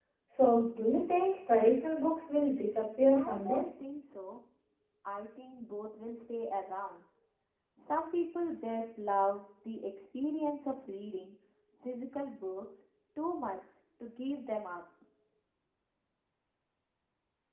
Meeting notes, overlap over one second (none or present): none